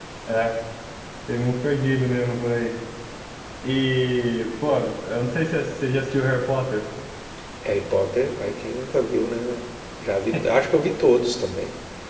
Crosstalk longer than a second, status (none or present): none